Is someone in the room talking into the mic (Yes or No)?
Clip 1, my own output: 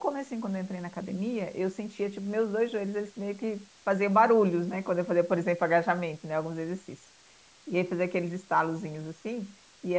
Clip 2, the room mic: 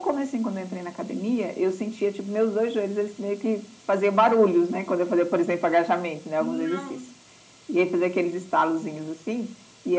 Yes